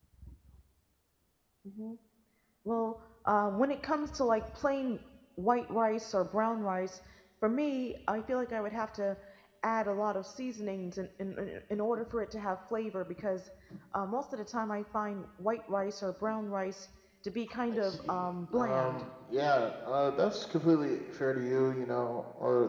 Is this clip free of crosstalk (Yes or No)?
No